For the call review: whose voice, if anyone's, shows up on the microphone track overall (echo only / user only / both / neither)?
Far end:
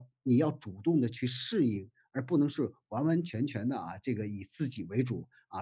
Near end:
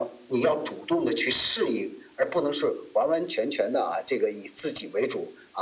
echo only